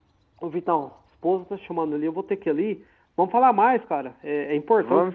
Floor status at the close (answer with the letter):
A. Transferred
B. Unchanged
B